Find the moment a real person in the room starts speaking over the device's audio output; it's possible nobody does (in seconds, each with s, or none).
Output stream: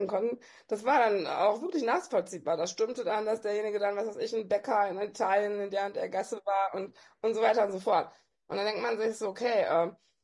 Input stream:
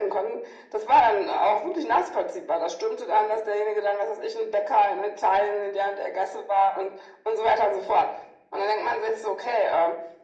none